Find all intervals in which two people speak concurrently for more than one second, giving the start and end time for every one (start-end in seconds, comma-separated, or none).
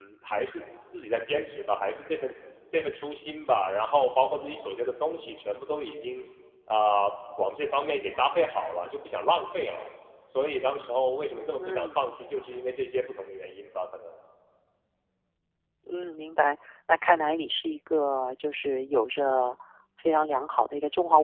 none